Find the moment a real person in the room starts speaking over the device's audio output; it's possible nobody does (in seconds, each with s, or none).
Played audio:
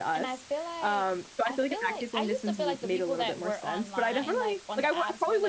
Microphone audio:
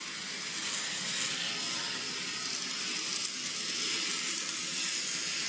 none